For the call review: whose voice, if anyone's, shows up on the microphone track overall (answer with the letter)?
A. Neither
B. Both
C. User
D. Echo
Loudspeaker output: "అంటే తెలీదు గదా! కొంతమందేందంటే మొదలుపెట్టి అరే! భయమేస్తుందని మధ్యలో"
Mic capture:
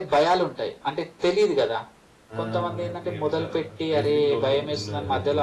B